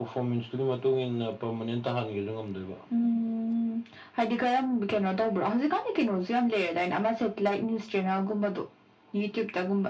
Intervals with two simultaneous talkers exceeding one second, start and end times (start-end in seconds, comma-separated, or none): none